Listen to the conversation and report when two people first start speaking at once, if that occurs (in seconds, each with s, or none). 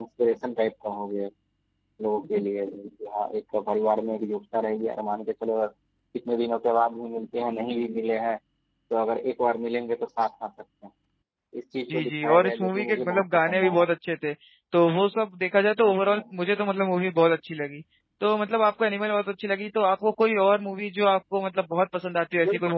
11.9 s